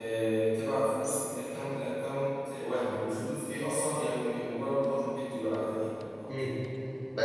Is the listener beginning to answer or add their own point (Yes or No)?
Yes